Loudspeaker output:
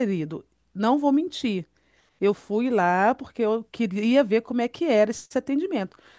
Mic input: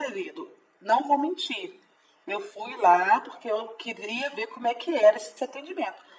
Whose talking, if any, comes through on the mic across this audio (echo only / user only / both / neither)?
echo only